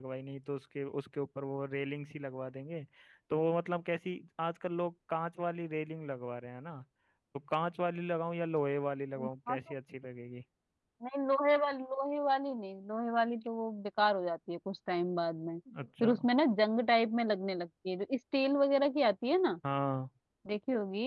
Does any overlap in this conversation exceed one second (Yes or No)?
No